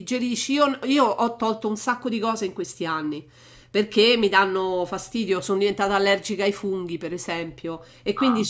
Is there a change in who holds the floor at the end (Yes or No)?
No